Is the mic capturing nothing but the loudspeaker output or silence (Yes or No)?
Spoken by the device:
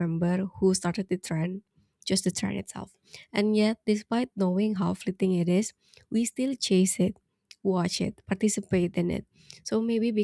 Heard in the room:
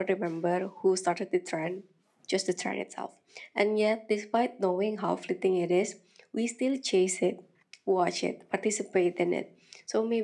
Yes